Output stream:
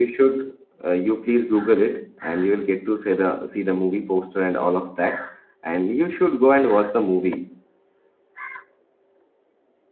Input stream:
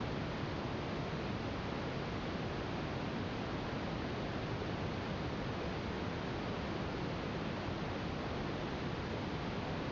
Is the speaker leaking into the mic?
No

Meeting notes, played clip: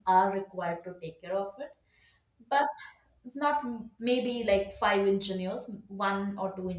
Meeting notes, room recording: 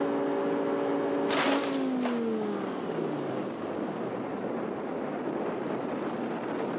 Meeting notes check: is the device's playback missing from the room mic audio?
Yes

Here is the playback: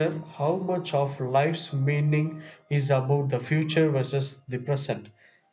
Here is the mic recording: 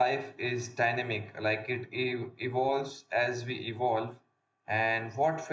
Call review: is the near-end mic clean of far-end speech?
Yes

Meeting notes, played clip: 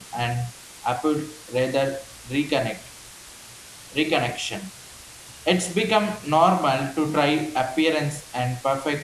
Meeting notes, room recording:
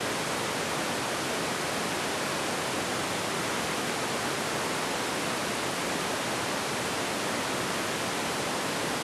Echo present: No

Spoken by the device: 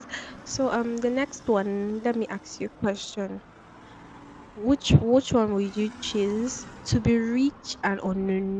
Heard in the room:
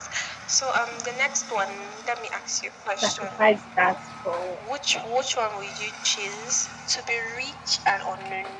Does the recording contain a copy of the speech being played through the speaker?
Yes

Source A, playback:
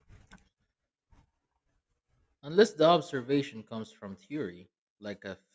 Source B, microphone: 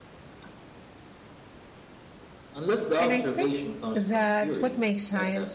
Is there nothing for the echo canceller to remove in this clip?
No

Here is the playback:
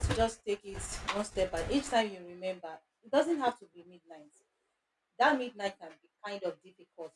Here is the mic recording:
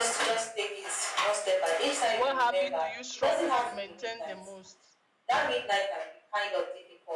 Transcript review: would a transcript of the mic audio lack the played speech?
No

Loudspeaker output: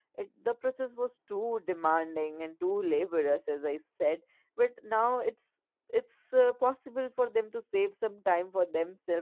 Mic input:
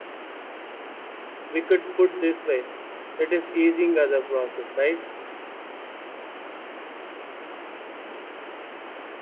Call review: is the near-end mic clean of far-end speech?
Yes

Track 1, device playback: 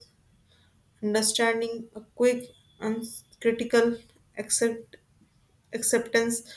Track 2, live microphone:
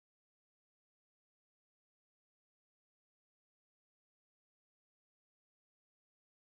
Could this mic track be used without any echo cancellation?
Yes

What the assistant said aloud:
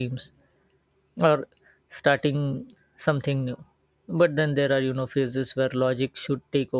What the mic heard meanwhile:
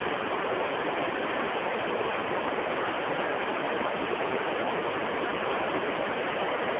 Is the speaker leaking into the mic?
No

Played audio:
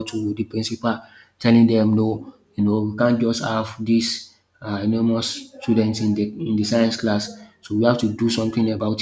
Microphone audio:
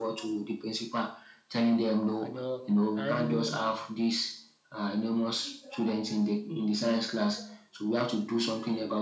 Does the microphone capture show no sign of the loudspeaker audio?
No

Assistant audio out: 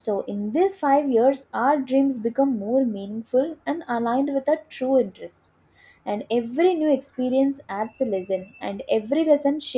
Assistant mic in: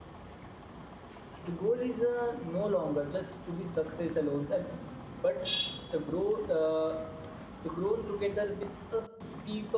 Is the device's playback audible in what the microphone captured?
No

